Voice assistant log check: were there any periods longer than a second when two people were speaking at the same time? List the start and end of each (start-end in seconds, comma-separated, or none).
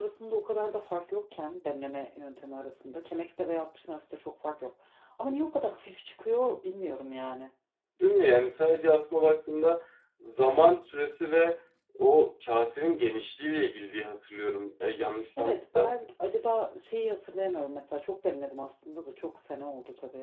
none